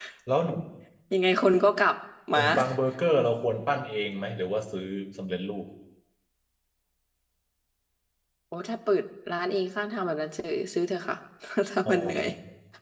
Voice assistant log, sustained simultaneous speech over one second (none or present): none